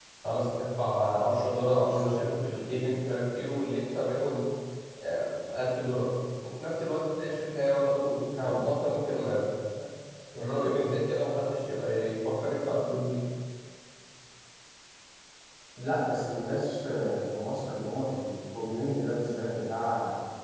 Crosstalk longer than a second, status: none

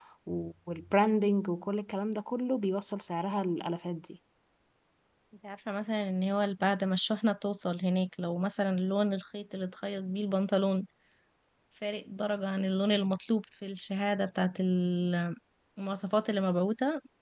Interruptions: none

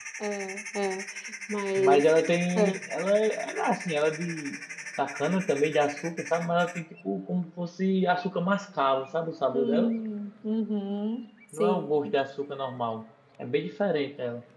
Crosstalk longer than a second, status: none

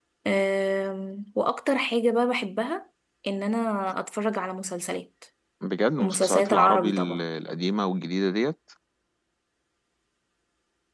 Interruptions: present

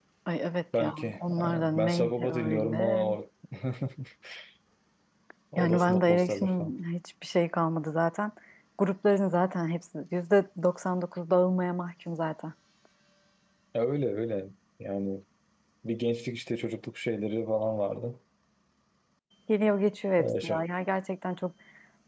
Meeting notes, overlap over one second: present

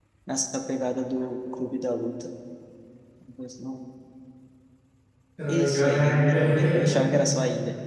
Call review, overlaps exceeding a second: present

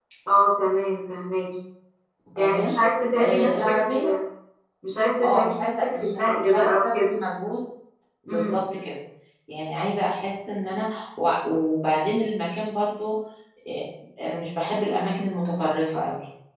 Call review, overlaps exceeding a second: present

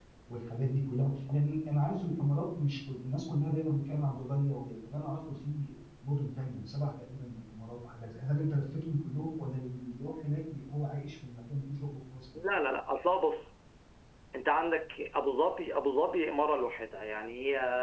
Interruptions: none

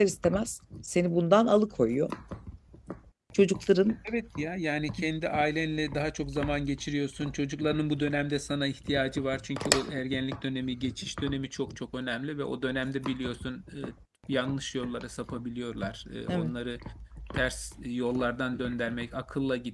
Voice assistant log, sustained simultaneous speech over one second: none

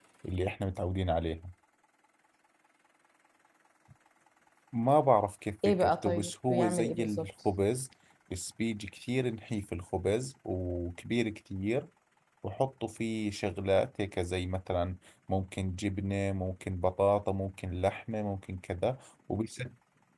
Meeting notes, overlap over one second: present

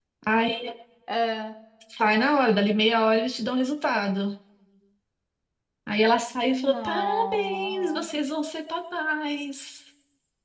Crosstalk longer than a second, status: present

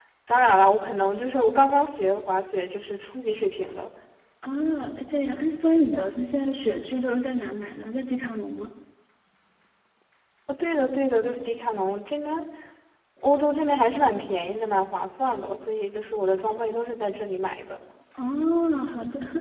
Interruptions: none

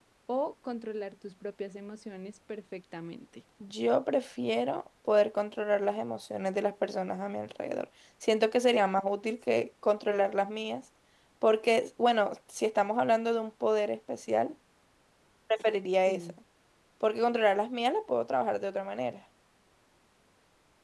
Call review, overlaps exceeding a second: none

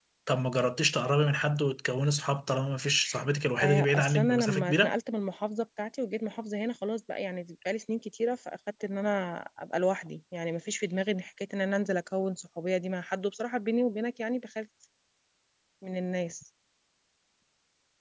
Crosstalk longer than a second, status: present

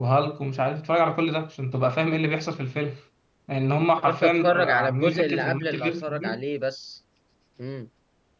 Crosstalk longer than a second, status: present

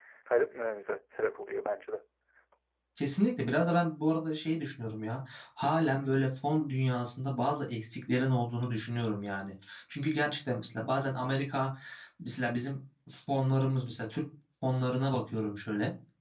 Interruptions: none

